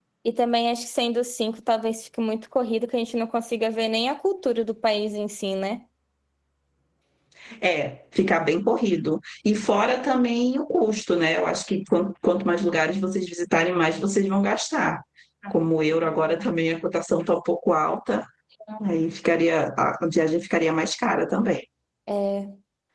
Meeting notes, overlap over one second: none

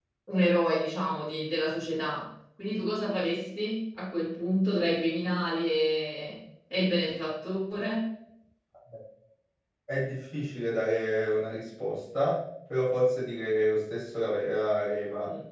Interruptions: none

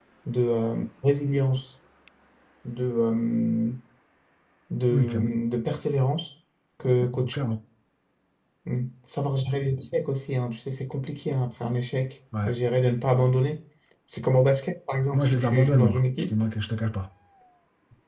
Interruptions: present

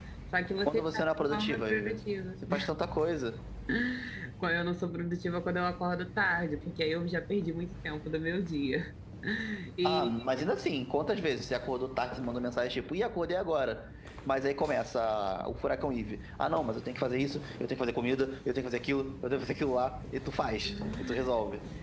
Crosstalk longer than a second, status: present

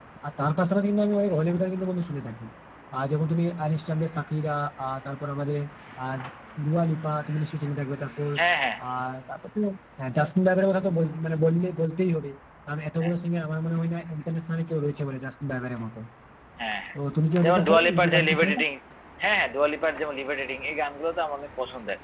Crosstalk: present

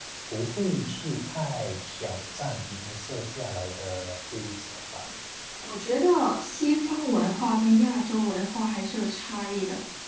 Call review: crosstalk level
none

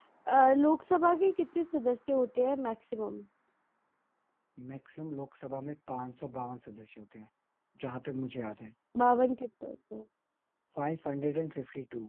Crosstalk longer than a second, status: none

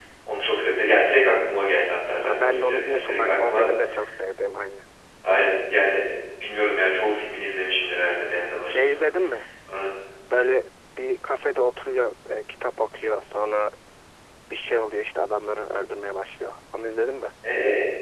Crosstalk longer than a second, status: present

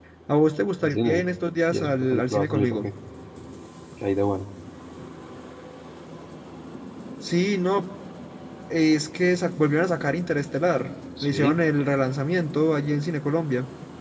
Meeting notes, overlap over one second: present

